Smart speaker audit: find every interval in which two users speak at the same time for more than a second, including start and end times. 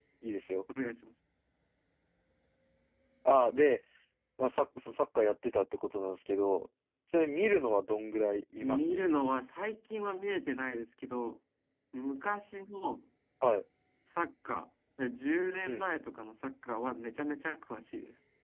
none

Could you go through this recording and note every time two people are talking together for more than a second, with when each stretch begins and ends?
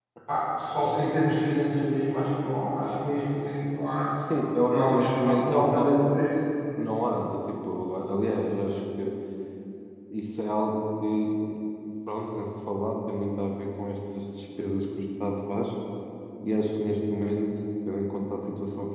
4.7-6.0

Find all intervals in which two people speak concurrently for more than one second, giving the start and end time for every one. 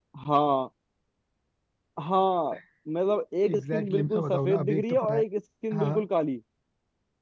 3.5-5.2

